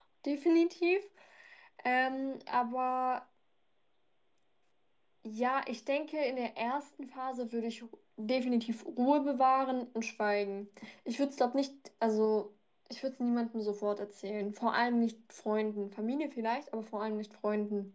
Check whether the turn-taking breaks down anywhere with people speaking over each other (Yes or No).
No